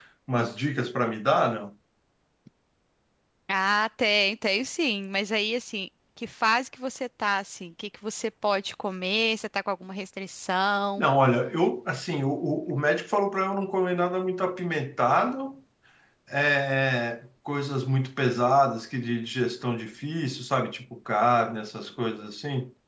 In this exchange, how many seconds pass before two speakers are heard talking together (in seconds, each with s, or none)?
none